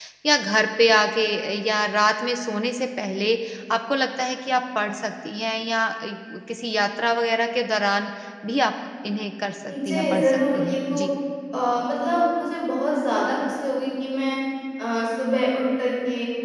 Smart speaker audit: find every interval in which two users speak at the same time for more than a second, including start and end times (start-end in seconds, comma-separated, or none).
9.7-11.0